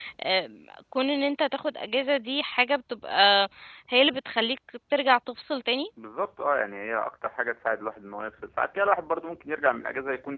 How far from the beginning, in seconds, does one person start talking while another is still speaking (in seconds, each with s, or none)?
none